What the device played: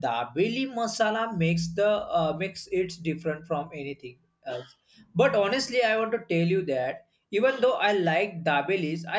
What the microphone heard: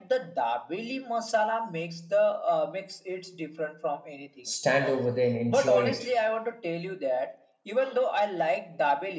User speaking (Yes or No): Yes